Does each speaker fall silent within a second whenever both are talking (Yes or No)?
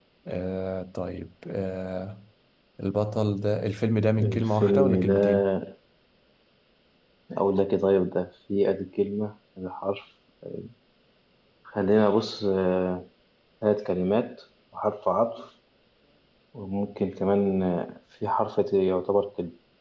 No